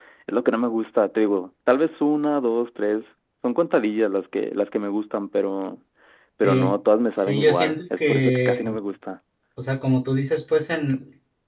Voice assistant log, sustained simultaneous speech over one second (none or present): present